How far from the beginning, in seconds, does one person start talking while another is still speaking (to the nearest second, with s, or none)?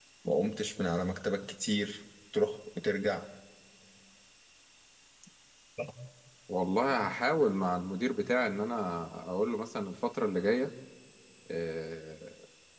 none